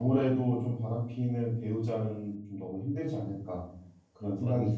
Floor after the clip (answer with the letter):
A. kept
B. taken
B